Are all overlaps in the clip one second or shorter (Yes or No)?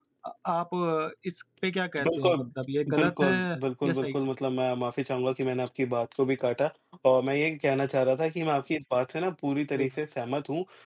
No